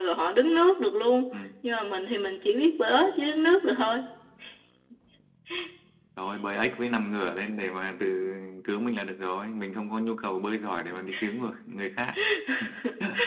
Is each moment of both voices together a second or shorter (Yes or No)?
Yes